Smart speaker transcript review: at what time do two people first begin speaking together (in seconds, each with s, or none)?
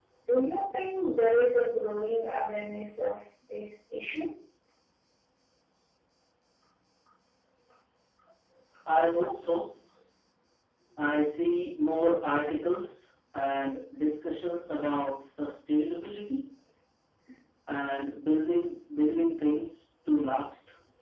none